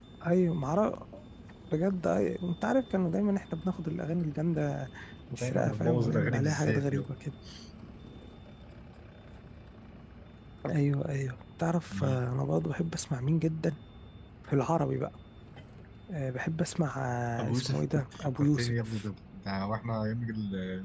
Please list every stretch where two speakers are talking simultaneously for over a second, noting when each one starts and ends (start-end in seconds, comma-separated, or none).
5.4-7.0, 17.5-19.0